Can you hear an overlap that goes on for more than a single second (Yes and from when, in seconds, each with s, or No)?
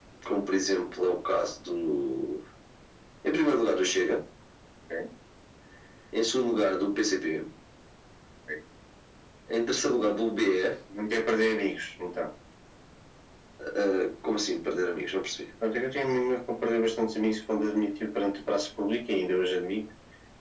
No